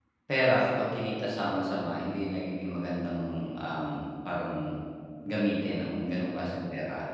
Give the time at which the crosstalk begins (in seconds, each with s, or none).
none